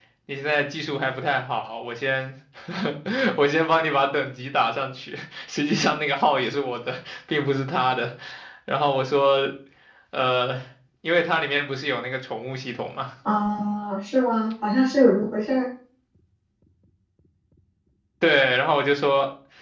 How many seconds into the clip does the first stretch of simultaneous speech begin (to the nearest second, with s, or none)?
none